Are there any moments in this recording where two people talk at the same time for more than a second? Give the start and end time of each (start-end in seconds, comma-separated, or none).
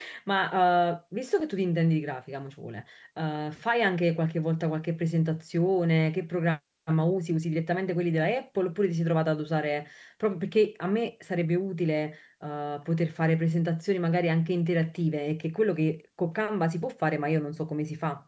none